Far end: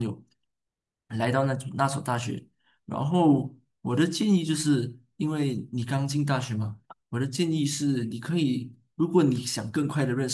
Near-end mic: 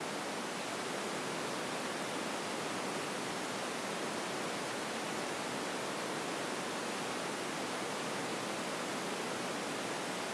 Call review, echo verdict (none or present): none